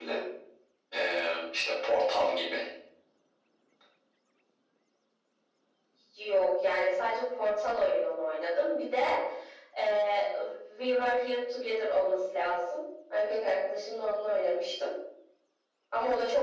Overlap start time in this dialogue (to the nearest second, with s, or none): none